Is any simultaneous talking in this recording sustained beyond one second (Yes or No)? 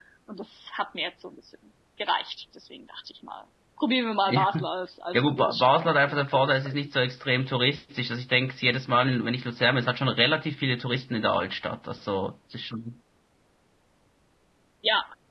Yes